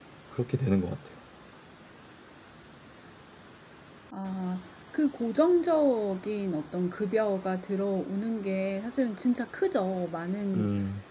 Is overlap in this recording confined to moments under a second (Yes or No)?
Yes